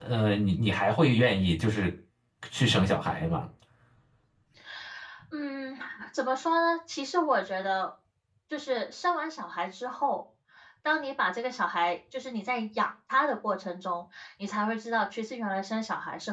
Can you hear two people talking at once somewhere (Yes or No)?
No